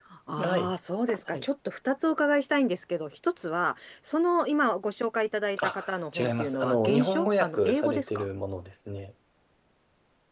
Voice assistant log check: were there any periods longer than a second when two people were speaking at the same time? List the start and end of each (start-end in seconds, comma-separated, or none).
5.6-8.3